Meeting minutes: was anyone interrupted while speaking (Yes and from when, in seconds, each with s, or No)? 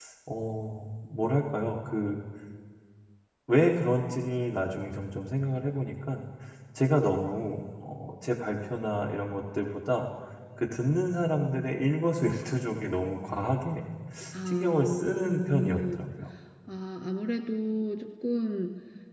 Yes, from 14.5 s